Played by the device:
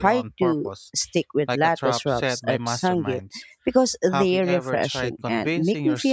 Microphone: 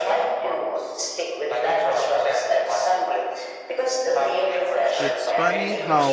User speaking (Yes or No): Yes